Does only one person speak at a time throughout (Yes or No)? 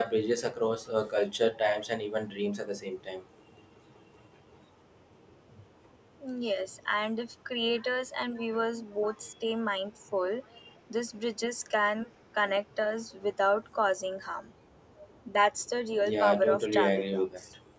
No